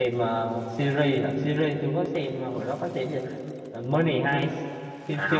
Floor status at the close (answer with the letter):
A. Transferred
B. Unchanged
A